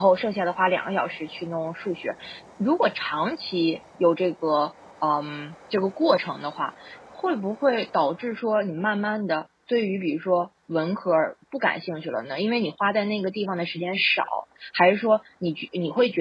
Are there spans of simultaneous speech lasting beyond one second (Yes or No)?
No